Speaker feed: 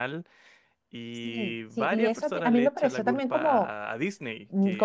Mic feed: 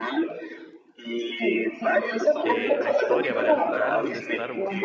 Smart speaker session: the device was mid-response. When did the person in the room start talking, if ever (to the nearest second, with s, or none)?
2 s